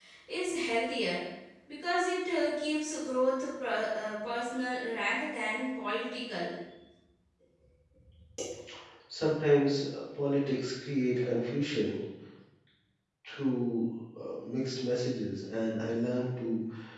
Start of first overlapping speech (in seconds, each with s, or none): none